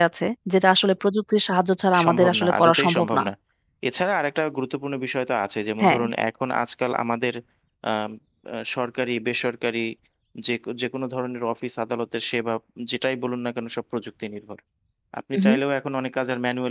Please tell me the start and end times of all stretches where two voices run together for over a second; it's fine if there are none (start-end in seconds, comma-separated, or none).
2.0-3.2